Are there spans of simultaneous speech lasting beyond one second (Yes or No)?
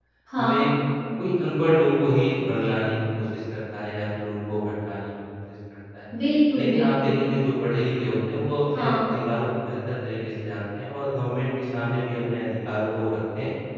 No